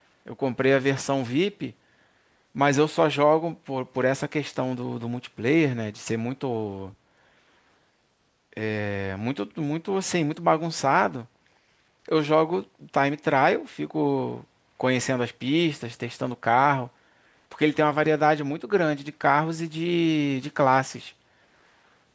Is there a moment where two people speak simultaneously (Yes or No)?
No